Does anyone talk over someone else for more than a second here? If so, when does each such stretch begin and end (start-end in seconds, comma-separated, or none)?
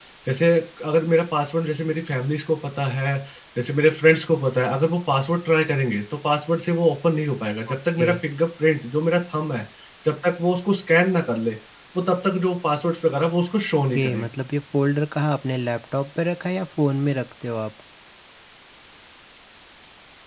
none